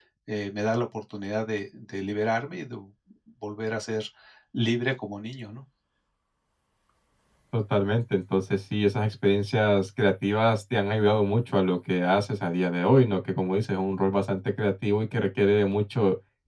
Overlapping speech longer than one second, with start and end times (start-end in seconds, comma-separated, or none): none